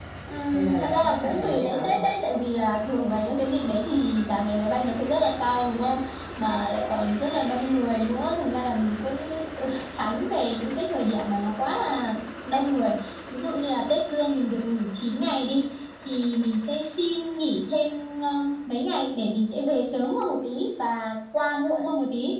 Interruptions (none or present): present